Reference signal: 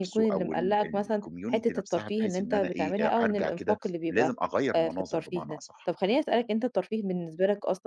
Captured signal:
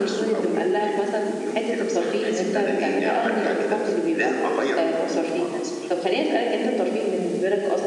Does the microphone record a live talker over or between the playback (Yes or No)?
No